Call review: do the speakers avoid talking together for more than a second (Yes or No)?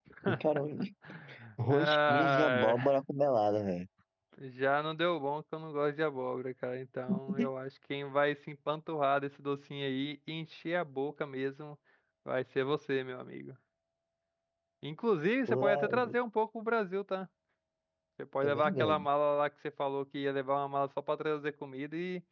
No